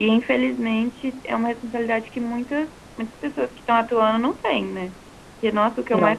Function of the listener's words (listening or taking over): listening